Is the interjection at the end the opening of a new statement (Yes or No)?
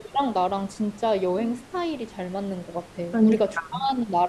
No